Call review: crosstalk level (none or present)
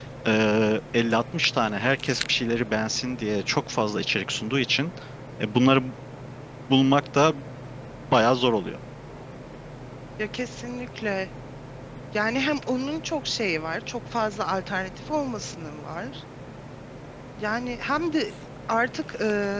none